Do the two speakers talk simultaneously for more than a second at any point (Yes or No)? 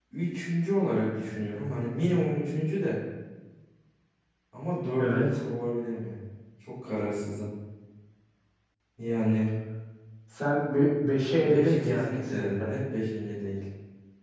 Yes